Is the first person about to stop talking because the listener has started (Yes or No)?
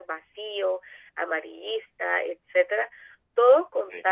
No